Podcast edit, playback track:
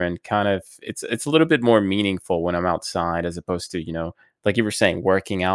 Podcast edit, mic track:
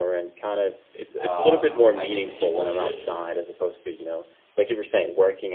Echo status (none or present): present